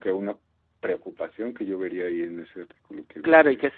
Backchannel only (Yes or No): No